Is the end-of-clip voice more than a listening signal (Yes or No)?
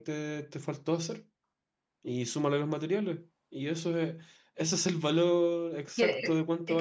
Yes